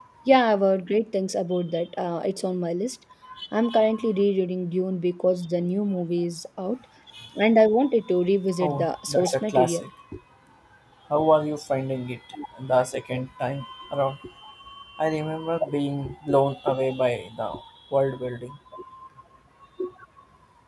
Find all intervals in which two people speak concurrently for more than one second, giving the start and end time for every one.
8.6-9.8

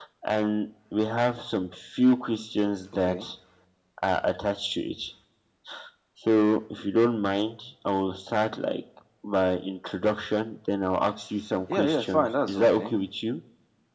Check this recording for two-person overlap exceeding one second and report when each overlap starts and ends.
11.7-12.9

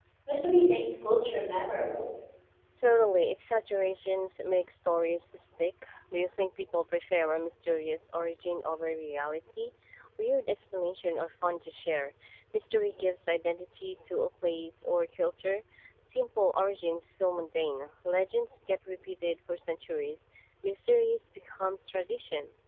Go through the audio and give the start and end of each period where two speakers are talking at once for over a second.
none

